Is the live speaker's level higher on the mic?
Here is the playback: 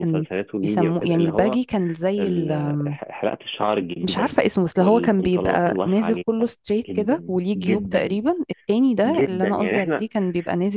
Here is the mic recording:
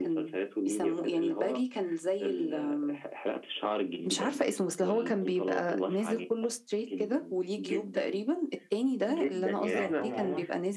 No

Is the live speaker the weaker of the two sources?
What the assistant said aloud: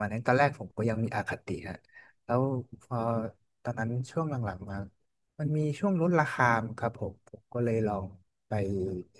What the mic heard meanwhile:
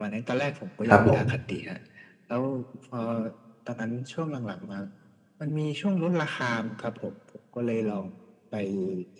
No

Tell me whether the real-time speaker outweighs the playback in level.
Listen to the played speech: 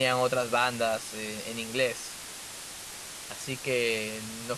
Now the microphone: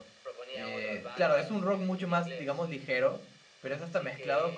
Yes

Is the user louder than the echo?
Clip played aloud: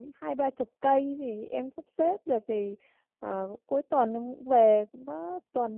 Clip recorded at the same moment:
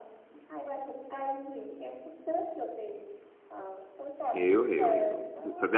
Yes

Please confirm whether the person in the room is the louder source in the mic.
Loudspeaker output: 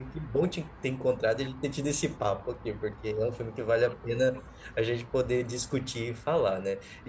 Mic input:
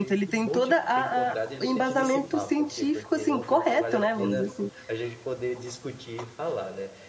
Yes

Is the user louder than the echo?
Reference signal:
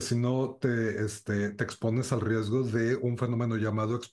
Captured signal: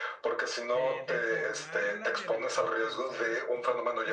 No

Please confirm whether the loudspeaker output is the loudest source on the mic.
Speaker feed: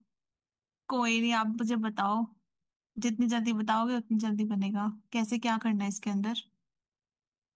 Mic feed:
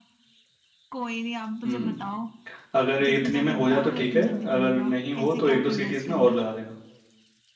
No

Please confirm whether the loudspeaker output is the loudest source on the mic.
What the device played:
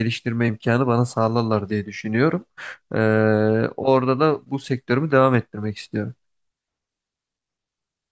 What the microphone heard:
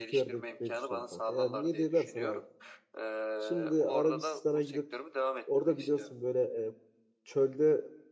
No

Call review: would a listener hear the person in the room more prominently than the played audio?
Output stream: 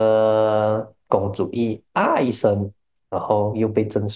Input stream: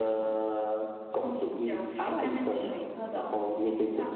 No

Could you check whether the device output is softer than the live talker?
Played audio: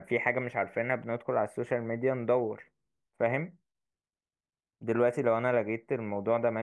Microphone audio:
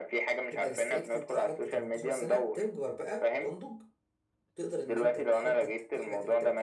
No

